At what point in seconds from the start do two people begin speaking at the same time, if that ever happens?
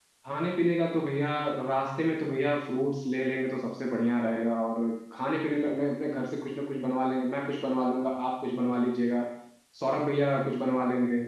none

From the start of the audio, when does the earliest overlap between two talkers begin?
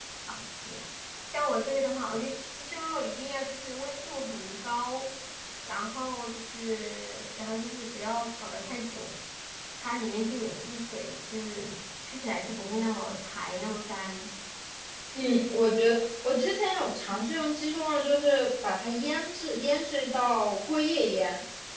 none

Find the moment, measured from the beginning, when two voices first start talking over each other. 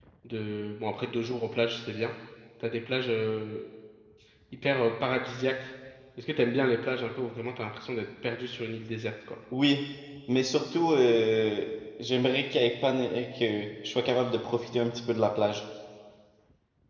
none

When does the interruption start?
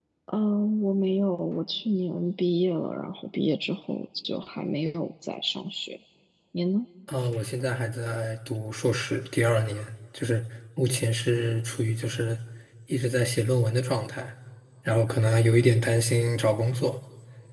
none

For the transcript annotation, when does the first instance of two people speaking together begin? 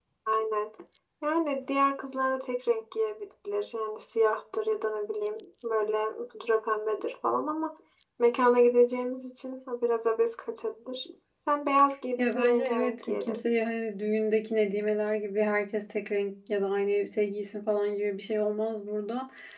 12.2 s

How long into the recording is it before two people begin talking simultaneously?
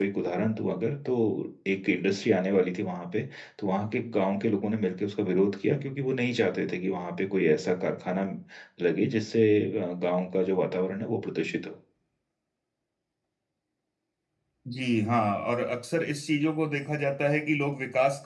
none

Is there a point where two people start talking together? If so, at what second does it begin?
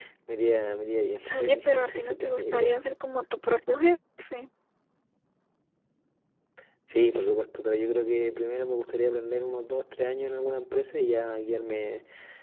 1.3 s

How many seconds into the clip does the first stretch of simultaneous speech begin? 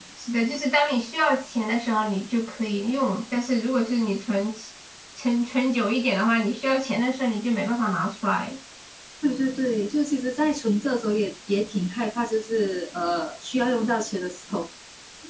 none

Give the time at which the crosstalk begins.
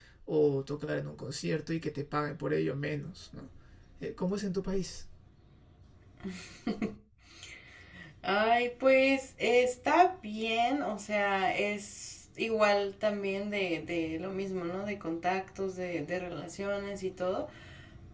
none

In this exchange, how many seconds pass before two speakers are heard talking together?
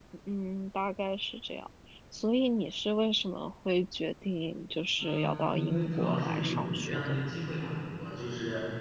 5.0 s

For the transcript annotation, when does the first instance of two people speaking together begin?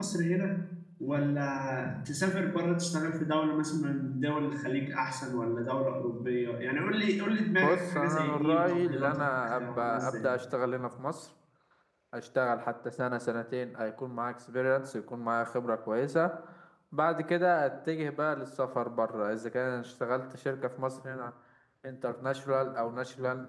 7.6 s

